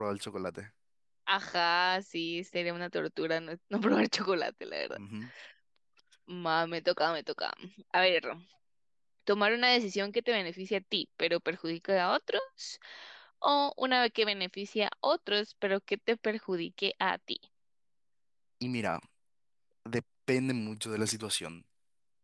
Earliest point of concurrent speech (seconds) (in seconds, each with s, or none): none